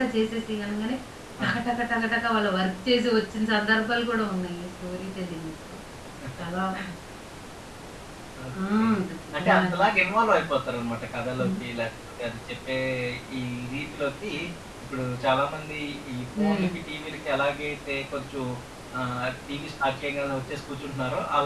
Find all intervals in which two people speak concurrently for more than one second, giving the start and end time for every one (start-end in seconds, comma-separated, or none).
none